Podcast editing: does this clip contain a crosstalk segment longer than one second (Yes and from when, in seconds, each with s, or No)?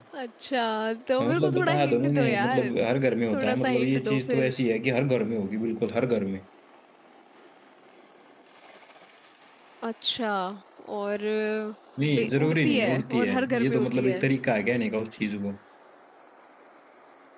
Yes, from 1.2 s